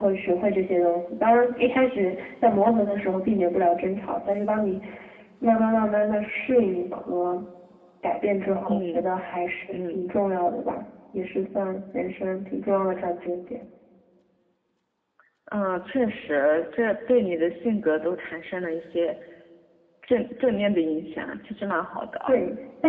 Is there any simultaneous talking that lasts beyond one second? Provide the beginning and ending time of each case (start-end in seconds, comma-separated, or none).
none